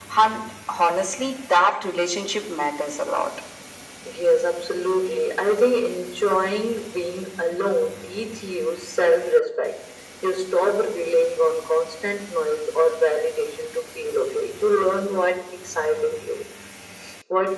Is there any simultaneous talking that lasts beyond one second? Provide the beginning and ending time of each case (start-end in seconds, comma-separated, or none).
none